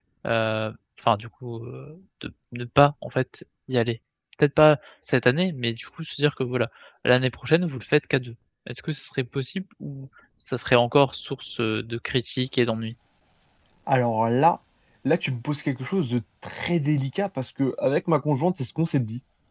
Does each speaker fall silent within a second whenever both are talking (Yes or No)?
Yes